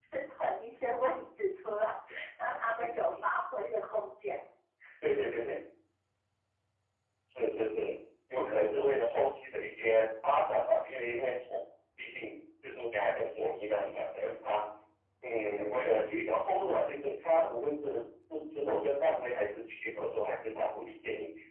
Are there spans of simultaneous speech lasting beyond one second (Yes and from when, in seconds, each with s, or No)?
No